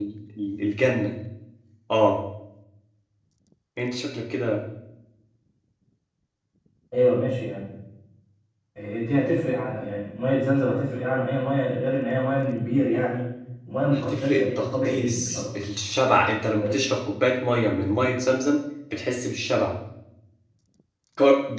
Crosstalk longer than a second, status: present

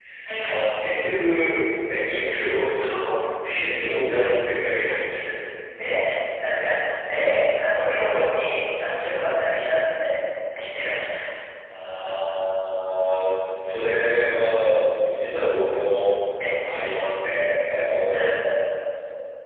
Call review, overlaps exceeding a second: none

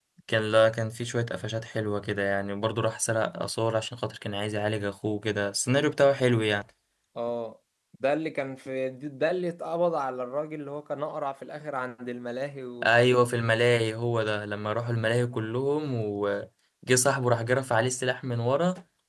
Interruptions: none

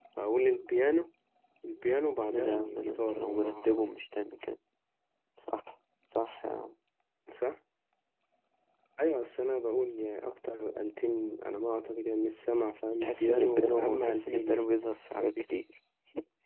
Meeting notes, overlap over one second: present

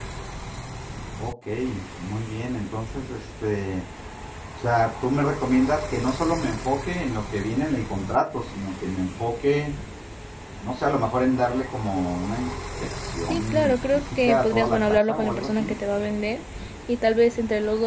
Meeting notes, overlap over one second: present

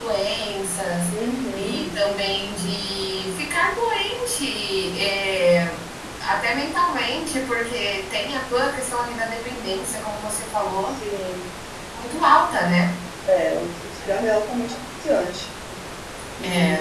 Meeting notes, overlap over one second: none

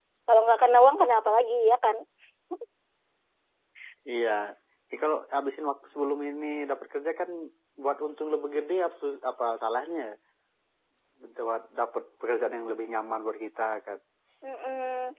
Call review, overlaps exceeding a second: none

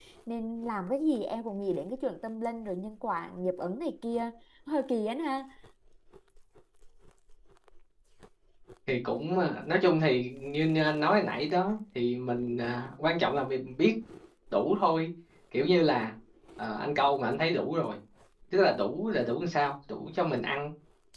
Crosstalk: none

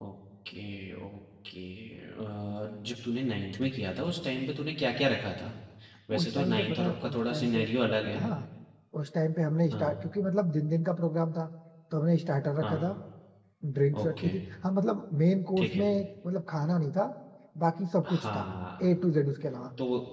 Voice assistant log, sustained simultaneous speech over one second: present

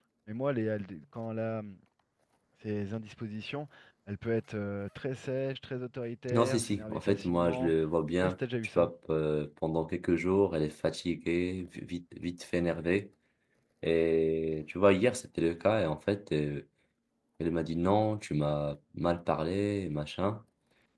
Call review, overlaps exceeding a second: present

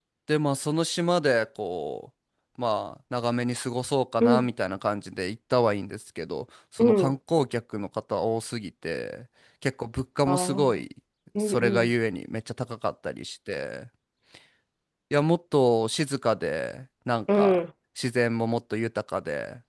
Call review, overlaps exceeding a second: none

